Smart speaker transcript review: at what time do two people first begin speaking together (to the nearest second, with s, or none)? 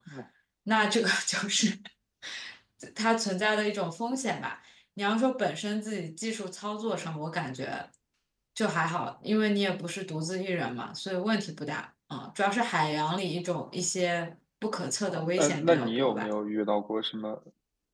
15 s